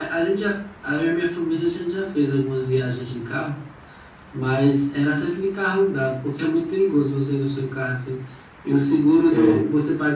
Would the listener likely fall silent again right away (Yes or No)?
Yes